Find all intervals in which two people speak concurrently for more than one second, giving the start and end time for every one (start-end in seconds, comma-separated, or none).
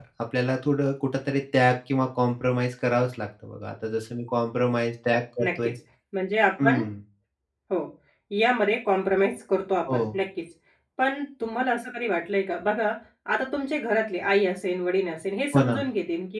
none